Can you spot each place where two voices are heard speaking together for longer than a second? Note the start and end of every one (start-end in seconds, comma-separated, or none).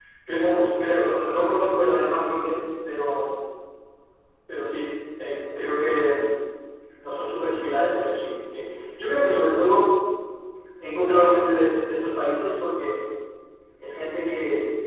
none